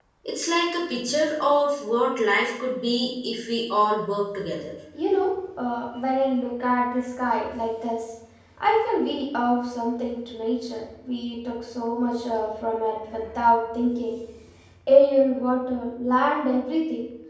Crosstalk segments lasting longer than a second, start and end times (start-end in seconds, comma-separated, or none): none